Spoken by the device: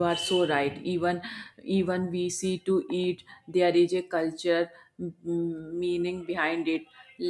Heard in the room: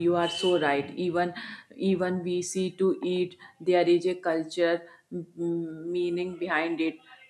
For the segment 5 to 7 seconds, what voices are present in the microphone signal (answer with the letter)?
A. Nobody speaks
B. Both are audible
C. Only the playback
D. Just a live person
C